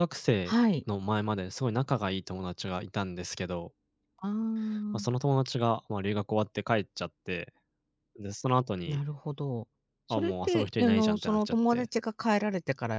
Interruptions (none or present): present